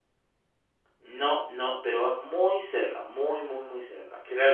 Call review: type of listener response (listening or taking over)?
taking over